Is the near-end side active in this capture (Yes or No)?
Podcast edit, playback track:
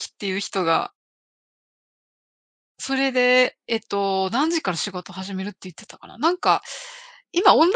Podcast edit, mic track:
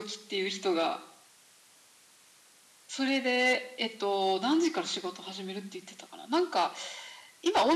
No